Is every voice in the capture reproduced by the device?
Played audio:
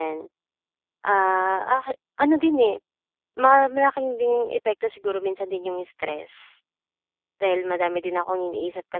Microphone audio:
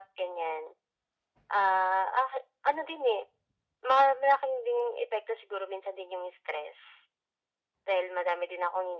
Yes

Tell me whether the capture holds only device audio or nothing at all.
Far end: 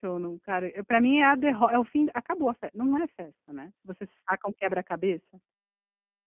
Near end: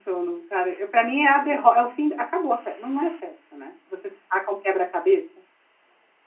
Yes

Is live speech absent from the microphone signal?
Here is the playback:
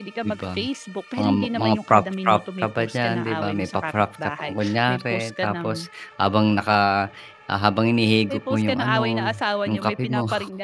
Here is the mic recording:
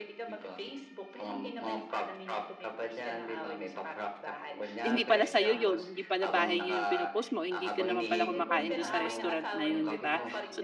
No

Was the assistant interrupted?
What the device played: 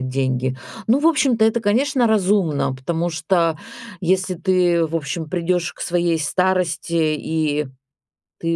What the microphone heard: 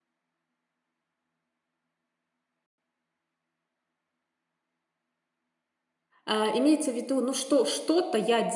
Yes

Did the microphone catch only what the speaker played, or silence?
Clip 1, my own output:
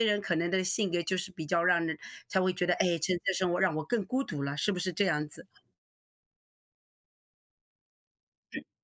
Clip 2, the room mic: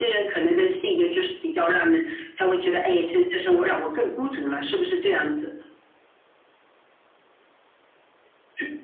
Yes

